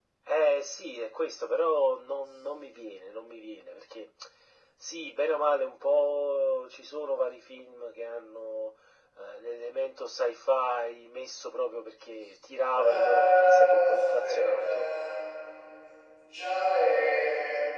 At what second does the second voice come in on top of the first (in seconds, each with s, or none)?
12.7 s